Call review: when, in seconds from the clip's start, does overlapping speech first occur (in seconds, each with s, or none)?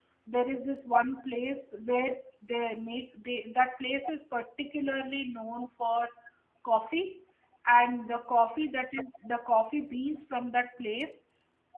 none